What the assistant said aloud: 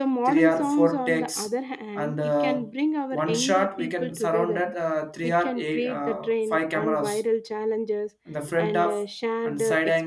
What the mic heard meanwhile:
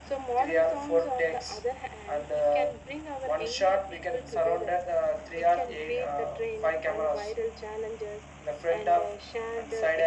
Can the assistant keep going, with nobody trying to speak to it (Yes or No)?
Yes